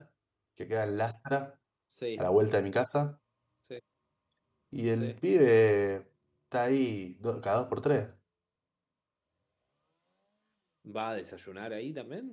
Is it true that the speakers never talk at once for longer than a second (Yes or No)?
Yes